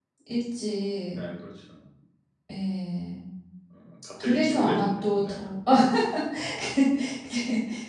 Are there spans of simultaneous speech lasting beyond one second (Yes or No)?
Yes